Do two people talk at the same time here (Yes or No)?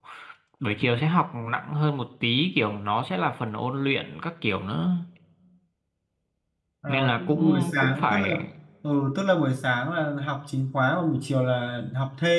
Yes